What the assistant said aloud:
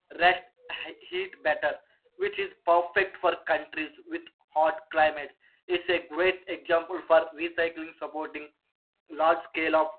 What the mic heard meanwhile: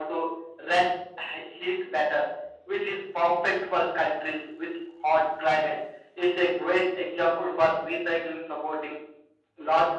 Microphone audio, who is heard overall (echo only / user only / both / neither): echo only